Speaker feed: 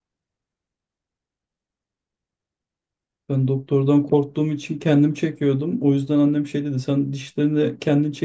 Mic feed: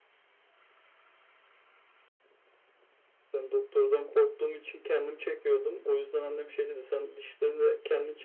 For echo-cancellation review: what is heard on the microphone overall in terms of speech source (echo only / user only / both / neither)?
echo only